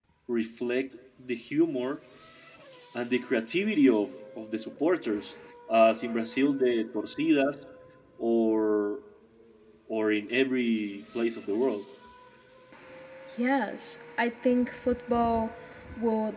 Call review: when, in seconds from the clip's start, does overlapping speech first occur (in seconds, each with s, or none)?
none